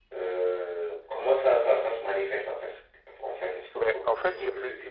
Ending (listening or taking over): taking over